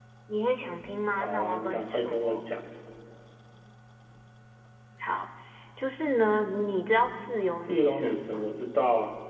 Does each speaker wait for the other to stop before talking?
No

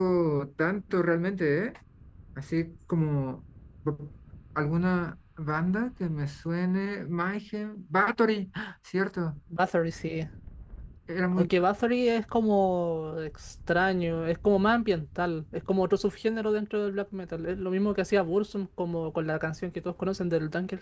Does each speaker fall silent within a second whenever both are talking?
Yes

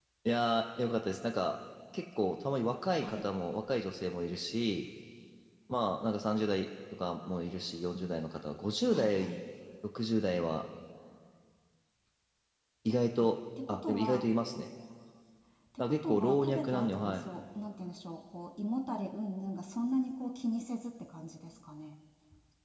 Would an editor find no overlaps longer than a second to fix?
No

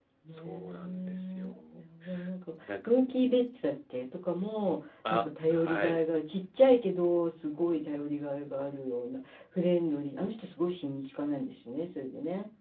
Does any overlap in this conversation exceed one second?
Yes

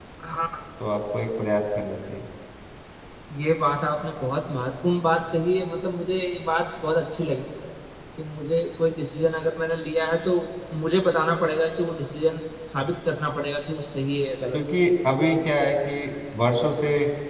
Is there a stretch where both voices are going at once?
No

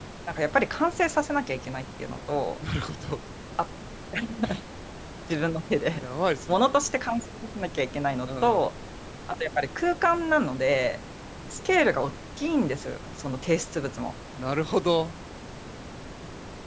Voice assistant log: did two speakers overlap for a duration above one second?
No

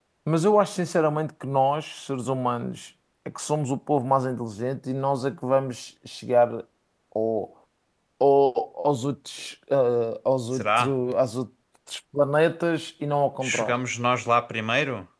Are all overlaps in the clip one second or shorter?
Yes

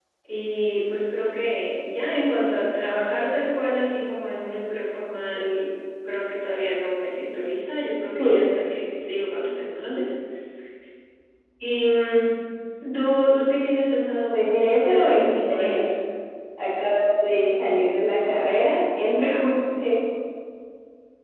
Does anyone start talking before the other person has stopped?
Yes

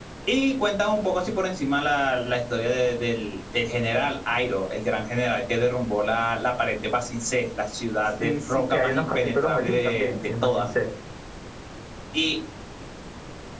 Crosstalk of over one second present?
Yes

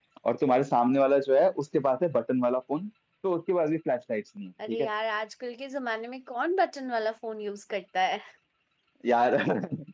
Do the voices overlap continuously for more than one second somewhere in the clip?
No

